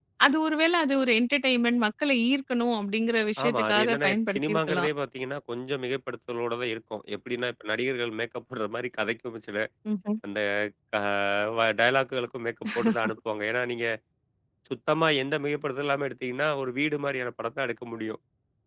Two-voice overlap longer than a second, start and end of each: 3.4-4.9

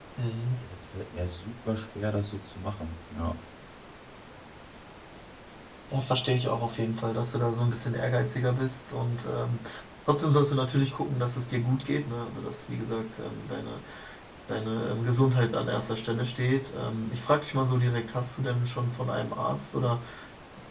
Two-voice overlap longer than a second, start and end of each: none

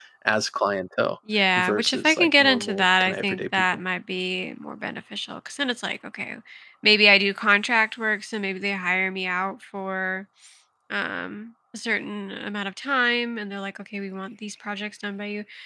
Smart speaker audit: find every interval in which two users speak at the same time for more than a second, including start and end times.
1.6-3.6

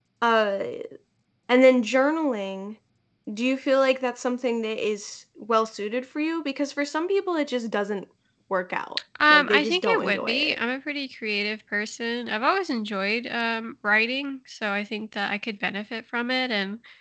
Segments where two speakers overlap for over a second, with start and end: 9.3-10.6

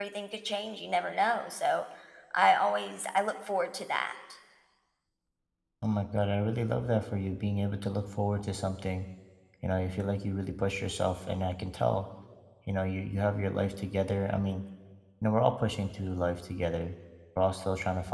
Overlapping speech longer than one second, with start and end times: none

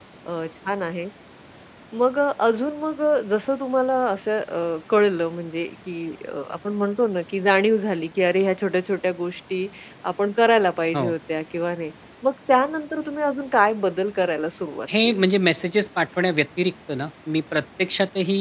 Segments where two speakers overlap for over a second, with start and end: none

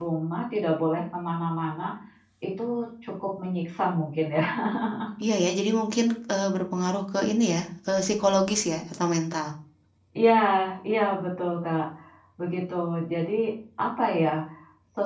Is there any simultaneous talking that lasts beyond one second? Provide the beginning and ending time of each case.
none

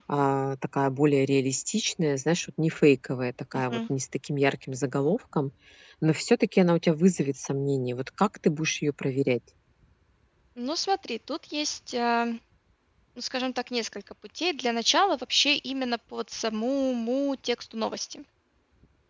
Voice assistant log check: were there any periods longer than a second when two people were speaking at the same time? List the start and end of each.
none

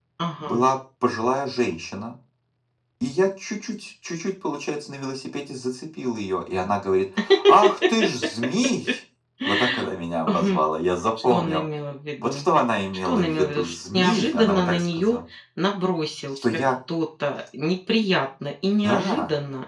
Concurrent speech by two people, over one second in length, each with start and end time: 13.1-15.2

